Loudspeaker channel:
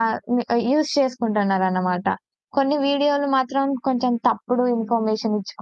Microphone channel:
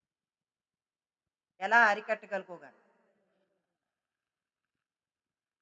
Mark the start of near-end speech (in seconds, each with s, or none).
1.7 s